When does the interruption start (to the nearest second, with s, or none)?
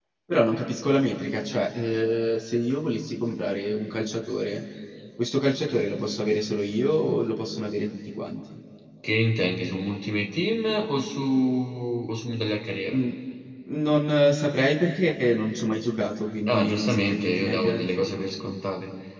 16 s